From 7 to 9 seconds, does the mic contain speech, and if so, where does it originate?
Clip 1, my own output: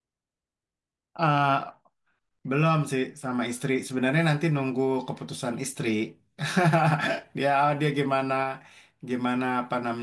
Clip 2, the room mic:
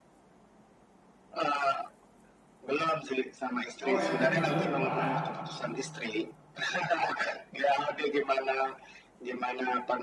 echo only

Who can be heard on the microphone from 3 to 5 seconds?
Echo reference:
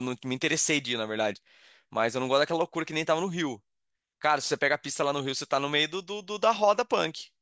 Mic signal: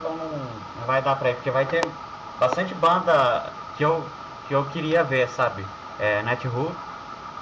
user only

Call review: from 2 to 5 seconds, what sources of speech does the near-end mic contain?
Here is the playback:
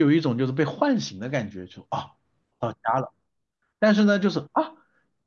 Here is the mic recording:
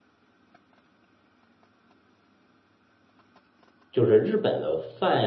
user only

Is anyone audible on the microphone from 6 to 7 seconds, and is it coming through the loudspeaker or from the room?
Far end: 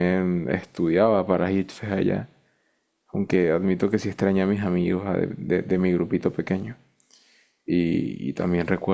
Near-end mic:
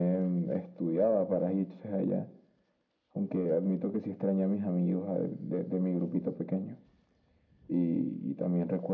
echo only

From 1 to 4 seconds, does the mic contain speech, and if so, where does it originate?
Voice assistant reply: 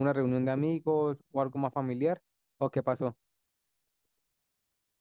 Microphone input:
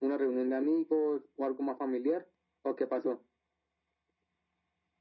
echo only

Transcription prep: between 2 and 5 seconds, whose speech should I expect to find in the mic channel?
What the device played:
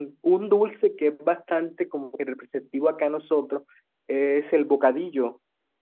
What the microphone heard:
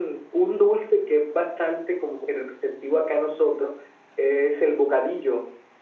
echo only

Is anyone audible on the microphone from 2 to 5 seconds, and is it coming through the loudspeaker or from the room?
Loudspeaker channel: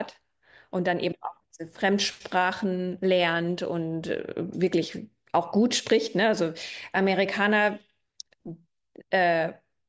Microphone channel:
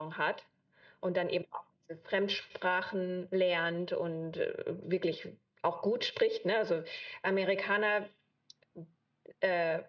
echo only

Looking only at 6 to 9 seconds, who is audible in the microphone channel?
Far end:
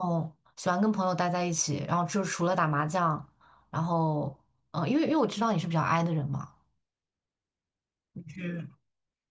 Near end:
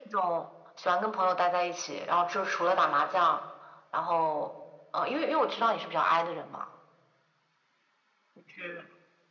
echo only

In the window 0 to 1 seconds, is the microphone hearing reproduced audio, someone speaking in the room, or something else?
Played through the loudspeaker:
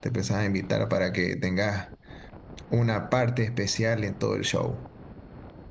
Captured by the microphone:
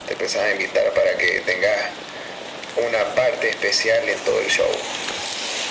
echo only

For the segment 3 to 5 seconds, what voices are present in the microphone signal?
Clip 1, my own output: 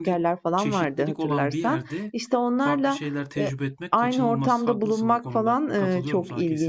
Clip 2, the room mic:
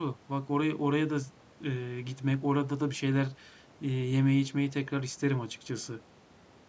user only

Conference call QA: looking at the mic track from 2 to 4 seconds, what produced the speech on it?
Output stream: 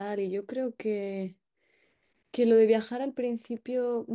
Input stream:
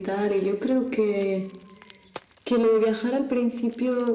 echo only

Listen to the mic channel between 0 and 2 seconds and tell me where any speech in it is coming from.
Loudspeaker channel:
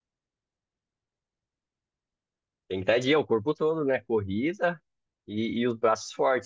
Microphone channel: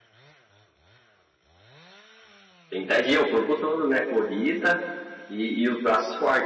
neither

